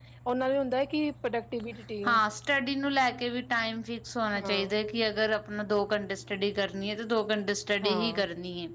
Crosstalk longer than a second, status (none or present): none